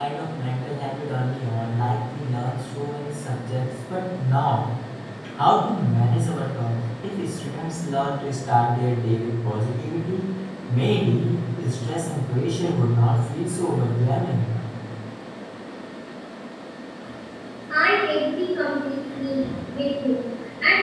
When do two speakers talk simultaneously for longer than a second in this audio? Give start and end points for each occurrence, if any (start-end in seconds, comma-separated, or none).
none